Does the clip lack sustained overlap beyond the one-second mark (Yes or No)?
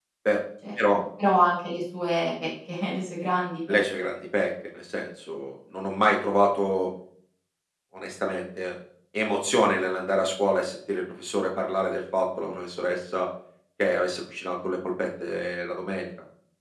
Yes